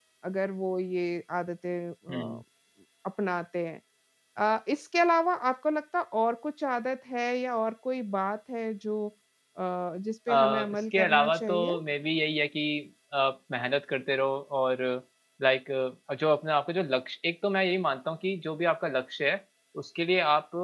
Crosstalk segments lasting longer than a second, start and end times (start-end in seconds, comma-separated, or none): 10.3-11.7